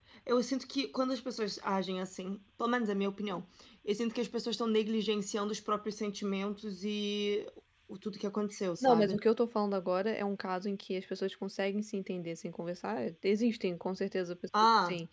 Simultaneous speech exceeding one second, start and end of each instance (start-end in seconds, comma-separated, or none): none